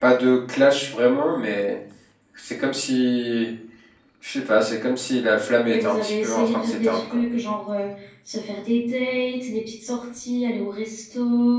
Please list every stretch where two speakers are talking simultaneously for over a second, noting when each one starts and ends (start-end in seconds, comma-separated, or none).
5.7-7.2